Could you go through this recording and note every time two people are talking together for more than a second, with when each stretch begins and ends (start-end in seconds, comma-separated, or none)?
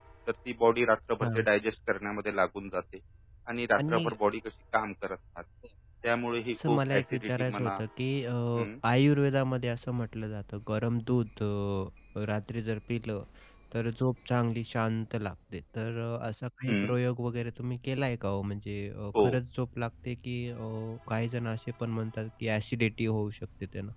6.5-7.8